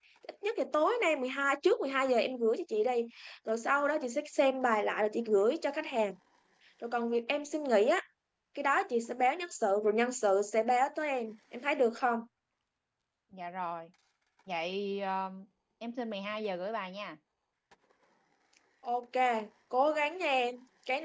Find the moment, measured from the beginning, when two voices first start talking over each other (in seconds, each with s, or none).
none